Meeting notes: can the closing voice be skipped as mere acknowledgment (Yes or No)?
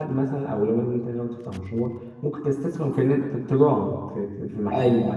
No